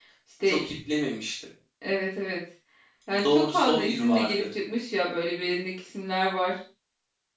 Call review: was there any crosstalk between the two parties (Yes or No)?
Yes